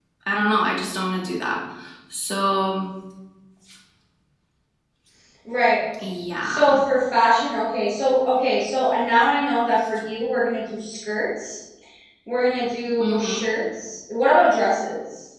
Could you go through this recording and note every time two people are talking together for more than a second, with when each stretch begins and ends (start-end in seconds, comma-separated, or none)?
none